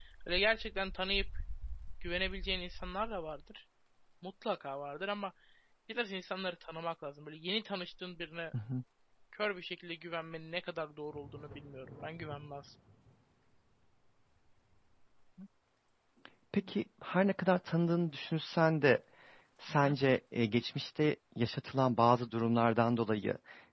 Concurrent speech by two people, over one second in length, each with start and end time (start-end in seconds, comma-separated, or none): none